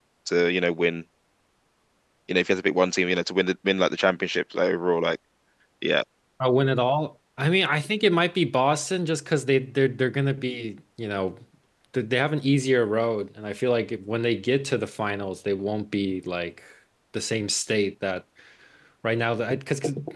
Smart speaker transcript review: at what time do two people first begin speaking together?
none

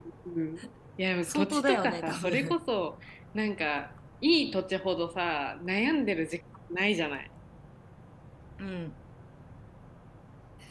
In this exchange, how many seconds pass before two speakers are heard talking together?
1.2 s

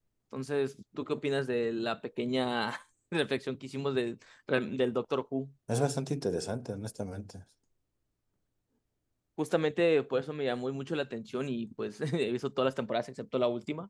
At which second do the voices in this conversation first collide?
none

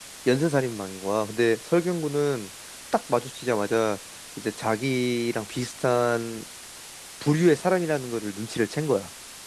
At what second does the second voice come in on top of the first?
none

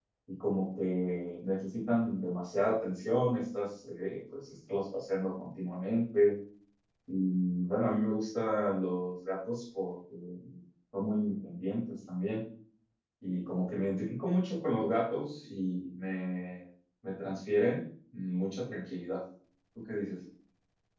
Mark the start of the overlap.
none

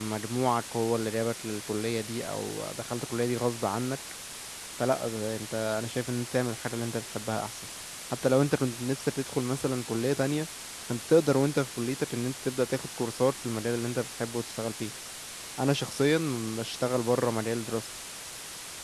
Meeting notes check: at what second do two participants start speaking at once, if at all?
none

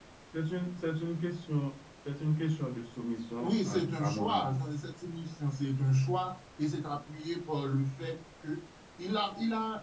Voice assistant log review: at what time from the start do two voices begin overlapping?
3.4 s

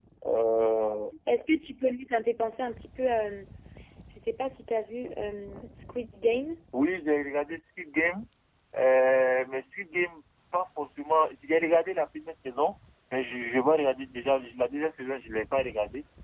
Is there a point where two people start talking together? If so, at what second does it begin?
none

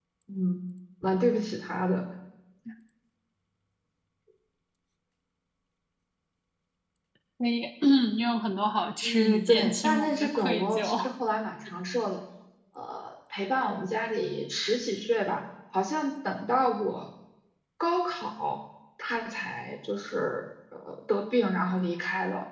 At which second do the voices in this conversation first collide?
9.0 s

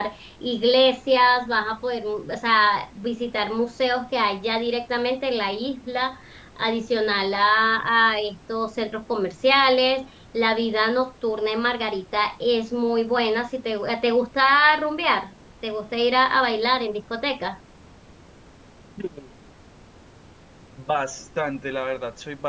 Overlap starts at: none

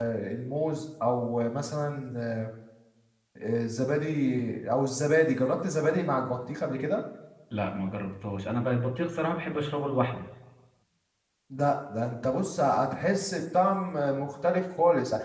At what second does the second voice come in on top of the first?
none

